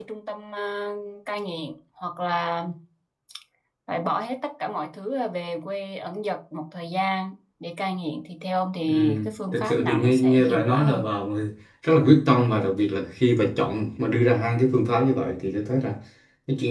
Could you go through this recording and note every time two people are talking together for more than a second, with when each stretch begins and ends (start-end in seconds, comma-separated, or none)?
8.9-11.0